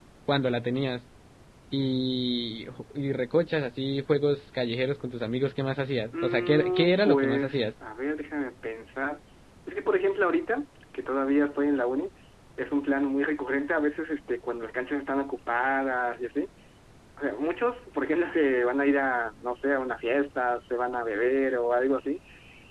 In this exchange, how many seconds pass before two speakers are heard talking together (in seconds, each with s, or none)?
6.1 s